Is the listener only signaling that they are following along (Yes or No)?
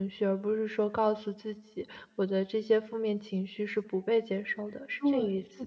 No